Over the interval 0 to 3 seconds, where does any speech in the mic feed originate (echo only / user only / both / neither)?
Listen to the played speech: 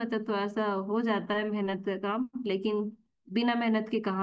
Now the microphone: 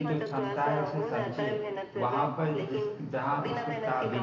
both